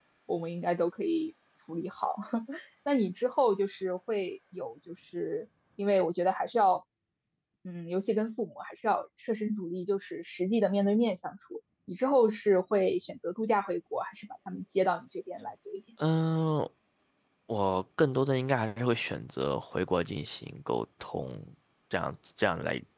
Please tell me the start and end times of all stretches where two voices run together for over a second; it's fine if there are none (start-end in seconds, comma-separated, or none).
none